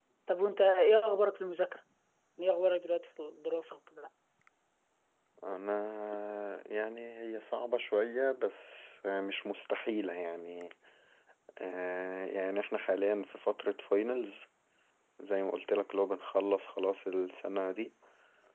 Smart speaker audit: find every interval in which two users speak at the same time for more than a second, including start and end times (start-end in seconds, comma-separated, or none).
none